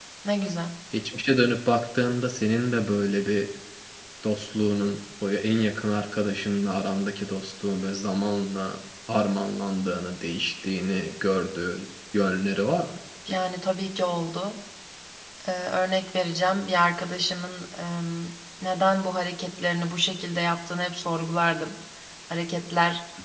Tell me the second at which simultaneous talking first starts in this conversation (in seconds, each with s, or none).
none